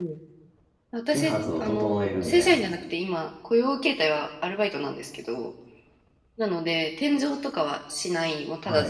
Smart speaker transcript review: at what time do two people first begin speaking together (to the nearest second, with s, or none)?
1 s